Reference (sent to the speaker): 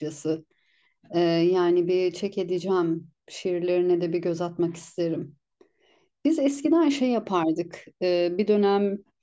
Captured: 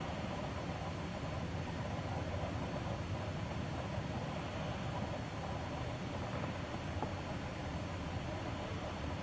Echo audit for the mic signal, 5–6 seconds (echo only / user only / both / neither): neither